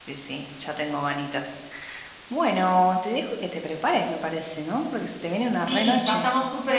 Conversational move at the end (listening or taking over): taking over